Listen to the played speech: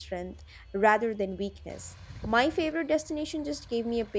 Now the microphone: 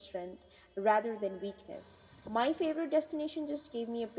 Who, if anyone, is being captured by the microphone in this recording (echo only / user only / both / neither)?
echo only